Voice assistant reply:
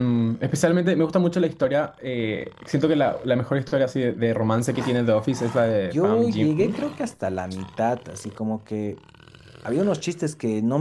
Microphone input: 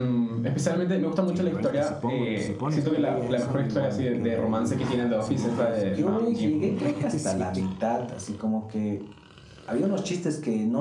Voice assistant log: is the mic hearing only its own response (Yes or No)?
No